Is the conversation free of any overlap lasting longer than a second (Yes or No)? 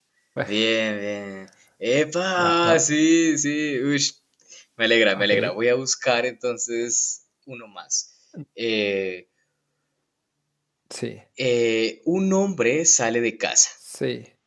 Yes